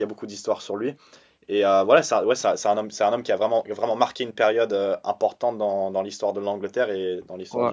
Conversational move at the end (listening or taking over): taking over